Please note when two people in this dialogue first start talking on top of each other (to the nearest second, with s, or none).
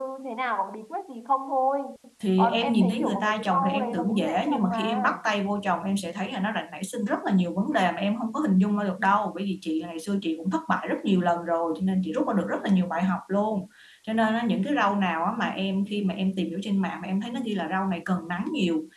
2 s